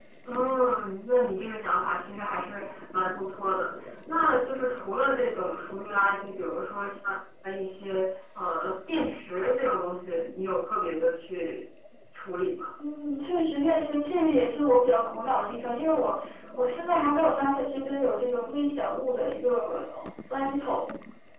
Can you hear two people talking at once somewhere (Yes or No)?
No